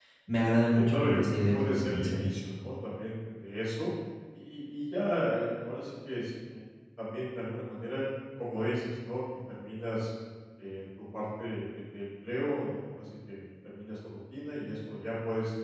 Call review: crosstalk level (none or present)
present